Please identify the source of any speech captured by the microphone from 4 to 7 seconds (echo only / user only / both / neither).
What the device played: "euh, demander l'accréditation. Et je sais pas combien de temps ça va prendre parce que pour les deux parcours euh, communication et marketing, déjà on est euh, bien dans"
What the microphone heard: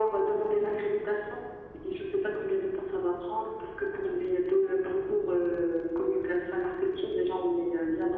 echo only